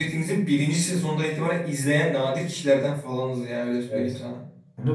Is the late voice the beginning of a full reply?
Yes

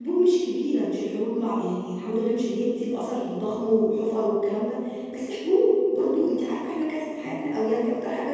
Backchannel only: Yes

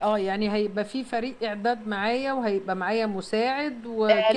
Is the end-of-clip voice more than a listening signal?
Yes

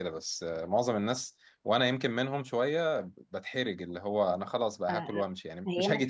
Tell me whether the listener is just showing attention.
No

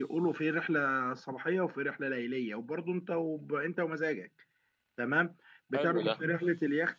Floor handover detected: No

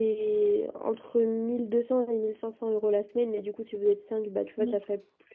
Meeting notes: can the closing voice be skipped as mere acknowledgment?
Yes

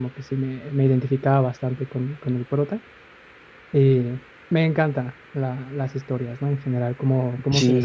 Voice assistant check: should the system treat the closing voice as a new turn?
No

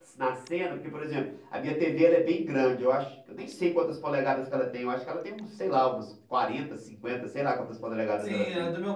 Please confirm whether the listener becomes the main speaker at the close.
Yes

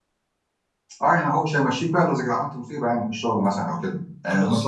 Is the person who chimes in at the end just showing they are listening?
Yes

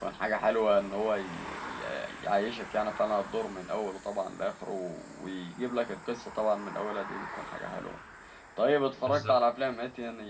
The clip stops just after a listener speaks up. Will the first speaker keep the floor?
Yes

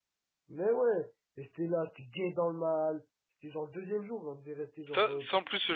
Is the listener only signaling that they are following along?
No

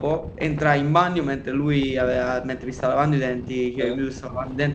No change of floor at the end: Yes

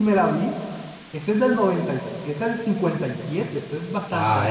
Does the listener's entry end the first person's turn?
Yes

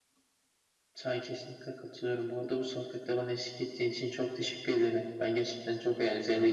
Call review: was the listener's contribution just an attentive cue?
Yes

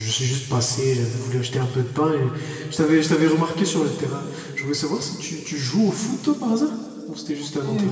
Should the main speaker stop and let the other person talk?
Yes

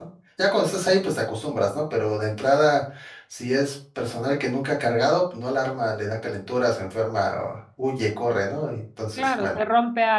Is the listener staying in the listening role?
No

